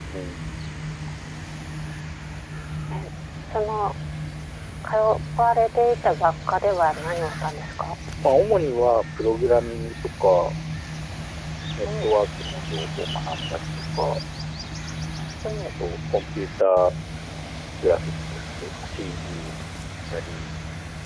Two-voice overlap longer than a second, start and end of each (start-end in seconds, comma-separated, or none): none